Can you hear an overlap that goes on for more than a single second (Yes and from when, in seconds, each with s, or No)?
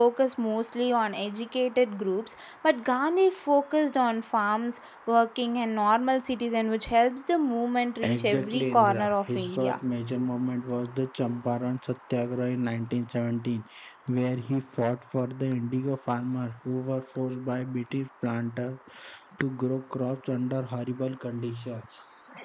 Yes, from 8.0 s